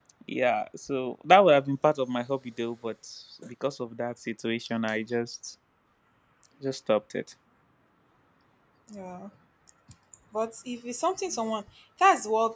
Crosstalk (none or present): none